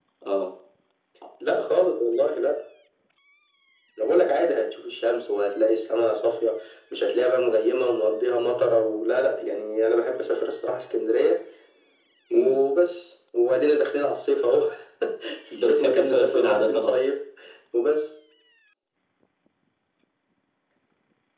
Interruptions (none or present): present